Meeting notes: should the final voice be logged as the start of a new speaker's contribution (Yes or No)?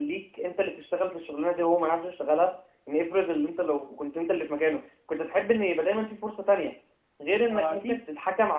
No